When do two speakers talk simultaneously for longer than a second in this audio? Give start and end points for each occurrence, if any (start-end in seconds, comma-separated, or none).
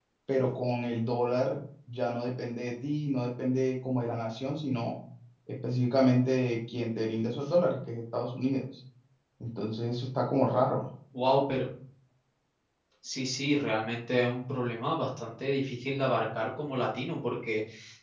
none